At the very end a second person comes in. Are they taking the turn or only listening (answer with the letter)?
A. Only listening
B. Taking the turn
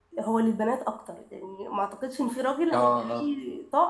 A